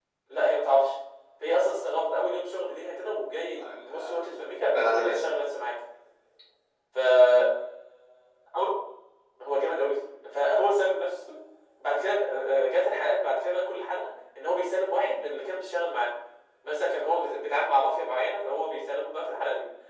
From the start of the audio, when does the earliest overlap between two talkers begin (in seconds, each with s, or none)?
3.6 s